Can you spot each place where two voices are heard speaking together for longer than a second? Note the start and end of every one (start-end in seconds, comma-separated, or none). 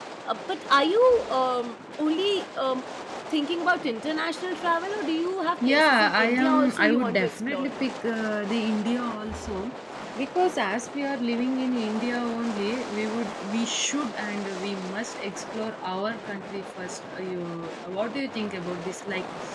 5.7-7.7